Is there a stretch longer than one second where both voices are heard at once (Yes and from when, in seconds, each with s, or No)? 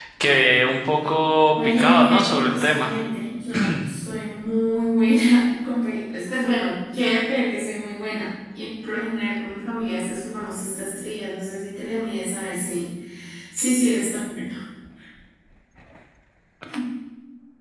Yes, from 1.6 s